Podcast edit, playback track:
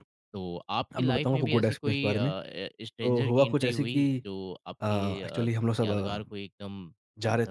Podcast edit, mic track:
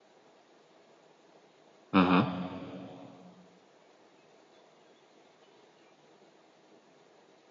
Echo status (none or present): none